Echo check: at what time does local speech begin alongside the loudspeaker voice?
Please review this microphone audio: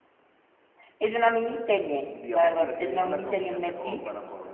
2 s

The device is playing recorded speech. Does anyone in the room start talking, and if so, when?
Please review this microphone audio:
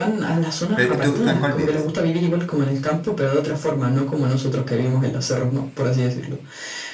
1 s

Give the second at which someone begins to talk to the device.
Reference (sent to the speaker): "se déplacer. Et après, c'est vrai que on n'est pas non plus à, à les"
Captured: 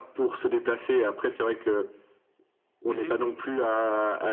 3 s

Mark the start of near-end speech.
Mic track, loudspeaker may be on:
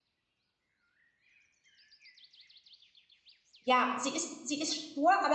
4 s

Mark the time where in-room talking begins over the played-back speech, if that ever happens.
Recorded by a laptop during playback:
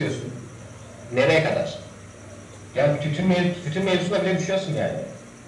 none

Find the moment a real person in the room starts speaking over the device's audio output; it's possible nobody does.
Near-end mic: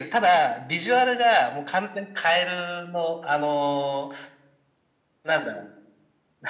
none

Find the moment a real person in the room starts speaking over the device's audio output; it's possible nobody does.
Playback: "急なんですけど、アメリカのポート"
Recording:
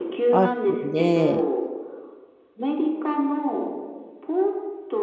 0 s

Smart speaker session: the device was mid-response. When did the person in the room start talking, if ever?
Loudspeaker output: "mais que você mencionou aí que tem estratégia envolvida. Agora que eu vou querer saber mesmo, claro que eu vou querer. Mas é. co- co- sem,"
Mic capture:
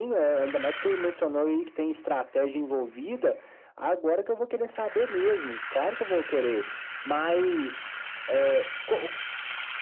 none

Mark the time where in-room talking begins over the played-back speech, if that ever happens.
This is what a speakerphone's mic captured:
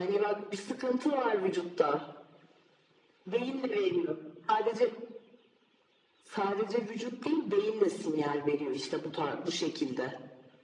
none

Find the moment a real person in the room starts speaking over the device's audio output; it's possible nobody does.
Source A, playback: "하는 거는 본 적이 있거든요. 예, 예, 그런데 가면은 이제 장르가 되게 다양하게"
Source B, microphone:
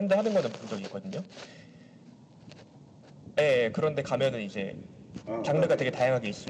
5 s

